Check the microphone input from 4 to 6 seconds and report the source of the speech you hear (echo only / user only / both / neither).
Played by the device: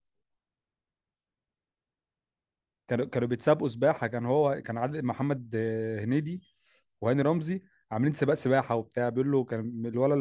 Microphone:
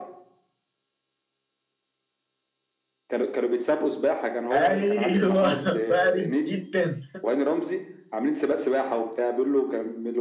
both